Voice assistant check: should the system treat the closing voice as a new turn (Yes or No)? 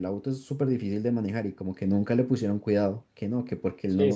Yes